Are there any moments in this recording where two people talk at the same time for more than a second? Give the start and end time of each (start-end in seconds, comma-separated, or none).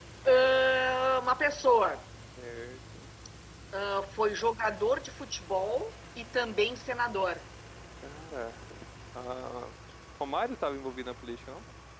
none